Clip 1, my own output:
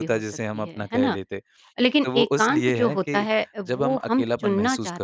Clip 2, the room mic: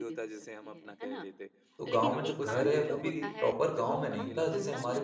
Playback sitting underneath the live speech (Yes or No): Yes